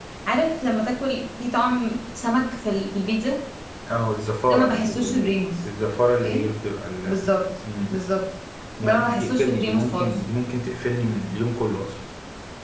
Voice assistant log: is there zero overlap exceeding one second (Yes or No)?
No